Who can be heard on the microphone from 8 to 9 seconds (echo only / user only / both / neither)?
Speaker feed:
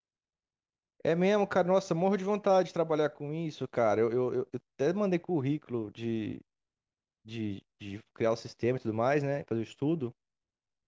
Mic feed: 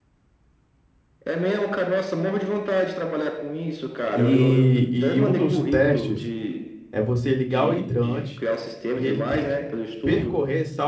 both